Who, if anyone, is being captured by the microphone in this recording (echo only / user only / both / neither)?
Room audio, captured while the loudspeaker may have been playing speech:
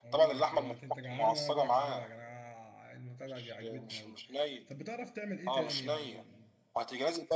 both